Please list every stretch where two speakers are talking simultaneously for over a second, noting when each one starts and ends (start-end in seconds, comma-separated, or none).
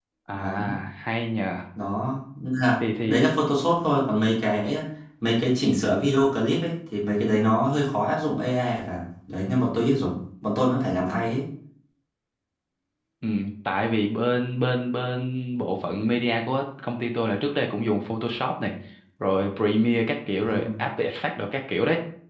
none